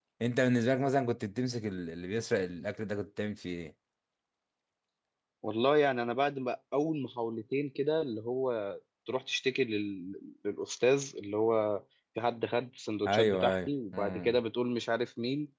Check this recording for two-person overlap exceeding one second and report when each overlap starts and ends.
13.1-14.4

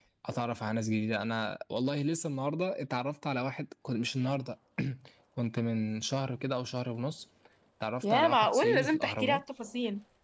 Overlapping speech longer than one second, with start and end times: 8.0-9.4

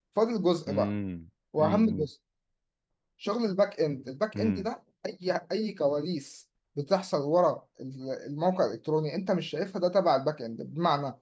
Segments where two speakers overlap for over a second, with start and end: none

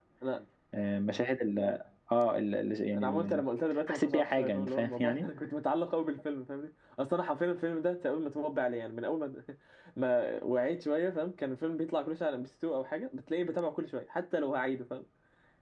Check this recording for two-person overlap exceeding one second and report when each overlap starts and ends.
3.9-5.3

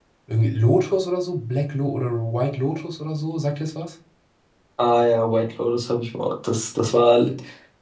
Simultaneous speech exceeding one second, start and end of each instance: none

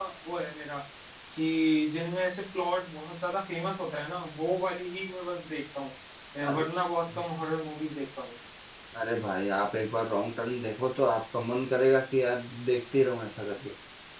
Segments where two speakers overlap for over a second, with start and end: none

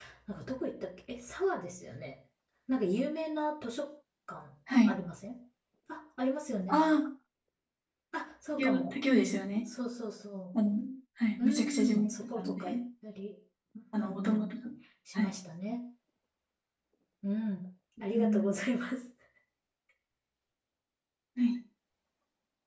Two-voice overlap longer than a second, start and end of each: 11.4-12.8

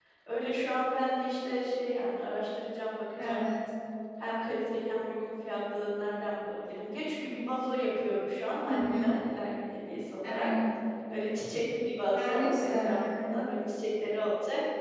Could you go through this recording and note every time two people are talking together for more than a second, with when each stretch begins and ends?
12.2-13.4

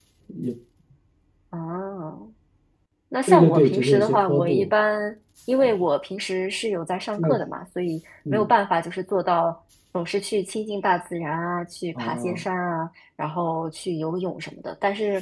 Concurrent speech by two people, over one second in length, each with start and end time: 3.3-4.7

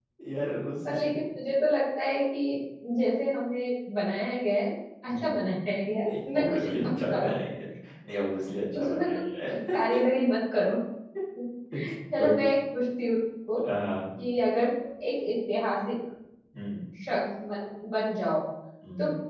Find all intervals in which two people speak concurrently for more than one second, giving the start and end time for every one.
6.1-7.3

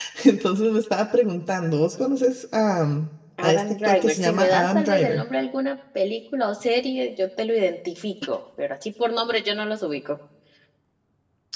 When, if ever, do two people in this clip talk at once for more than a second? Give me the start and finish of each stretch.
3.4-5.2

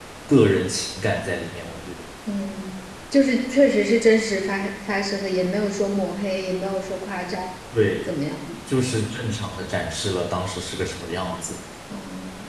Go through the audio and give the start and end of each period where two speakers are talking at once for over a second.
none

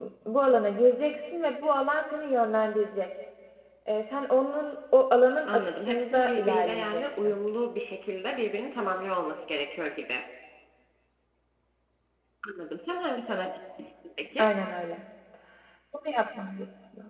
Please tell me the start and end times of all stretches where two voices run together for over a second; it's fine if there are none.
5.5-7.3

